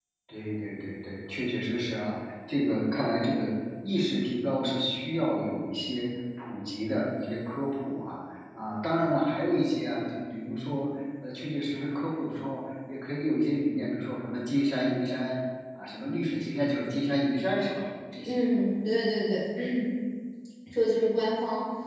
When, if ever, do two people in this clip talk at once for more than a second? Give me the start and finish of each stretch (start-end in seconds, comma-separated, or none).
none